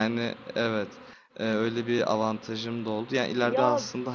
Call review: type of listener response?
listening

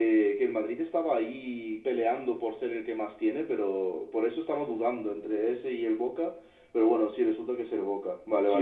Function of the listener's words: taking over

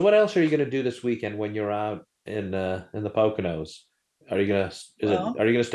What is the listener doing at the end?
listening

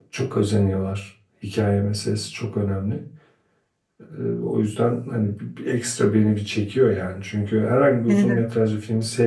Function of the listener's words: listening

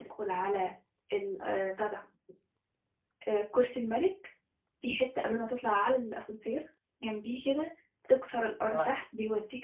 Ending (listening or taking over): listening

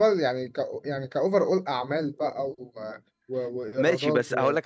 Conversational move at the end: taking over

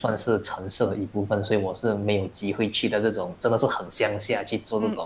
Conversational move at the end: taking over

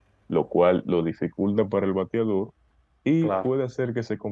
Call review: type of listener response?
listening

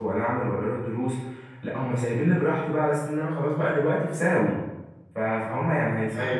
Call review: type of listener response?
listening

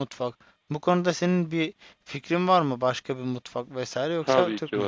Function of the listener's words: taking over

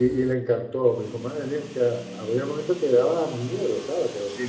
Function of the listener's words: taking over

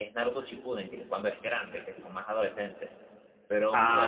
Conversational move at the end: taking over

